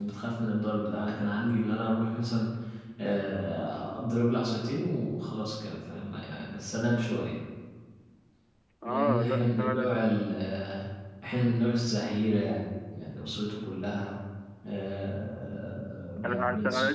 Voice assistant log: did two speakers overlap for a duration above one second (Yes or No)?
Yes